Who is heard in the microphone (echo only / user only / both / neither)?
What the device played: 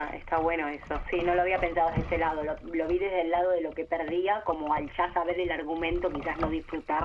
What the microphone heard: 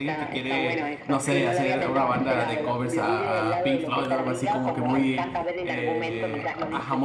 both